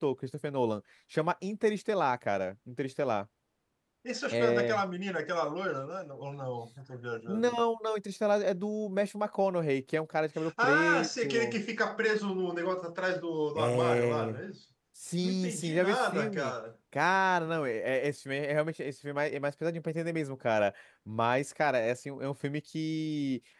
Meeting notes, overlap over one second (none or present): present